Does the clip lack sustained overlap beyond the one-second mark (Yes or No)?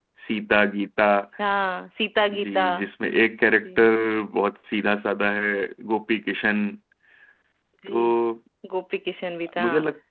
Yes